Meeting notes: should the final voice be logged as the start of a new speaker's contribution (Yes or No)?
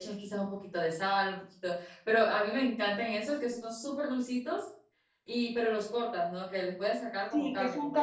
Yes